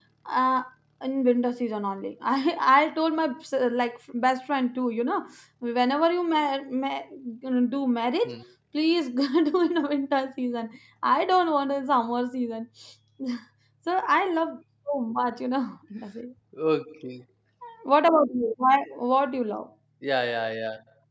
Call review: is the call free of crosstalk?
Yes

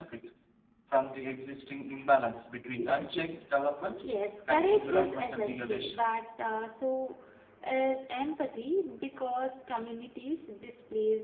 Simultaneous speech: Yes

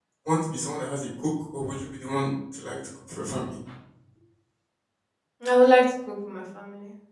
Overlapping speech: No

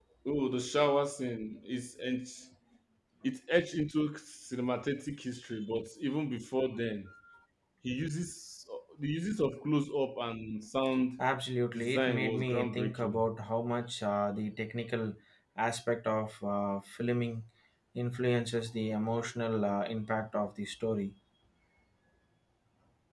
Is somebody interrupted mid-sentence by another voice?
Yes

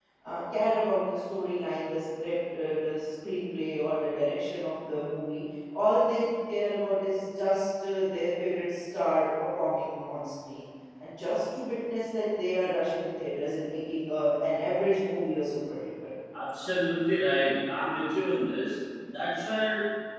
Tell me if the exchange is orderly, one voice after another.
Yes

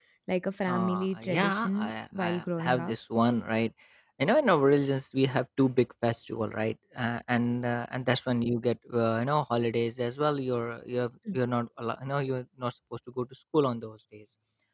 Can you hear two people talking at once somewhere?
Yes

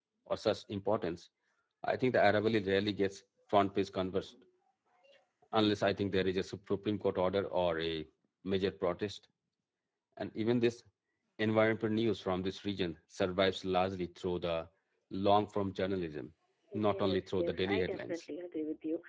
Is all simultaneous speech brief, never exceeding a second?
No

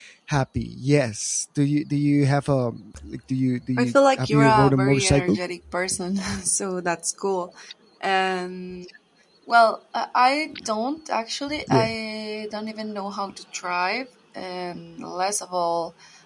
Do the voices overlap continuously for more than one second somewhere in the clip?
Yes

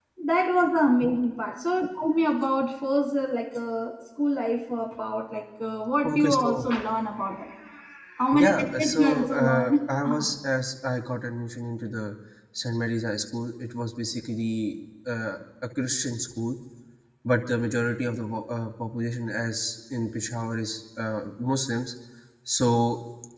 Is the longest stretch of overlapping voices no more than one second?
No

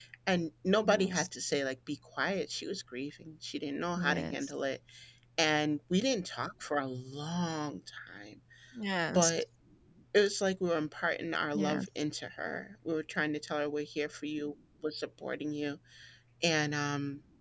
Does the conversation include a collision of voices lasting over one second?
No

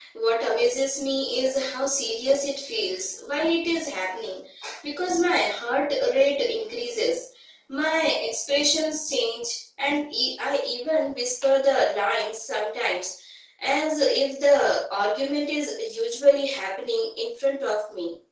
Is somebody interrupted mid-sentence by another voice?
No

